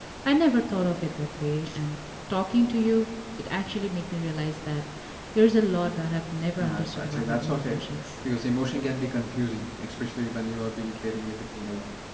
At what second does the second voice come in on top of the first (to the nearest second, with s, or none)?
7 s